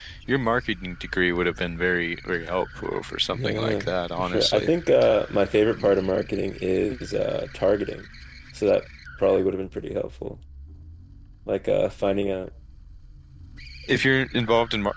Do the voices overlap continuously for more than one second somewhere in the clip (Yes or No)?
Yes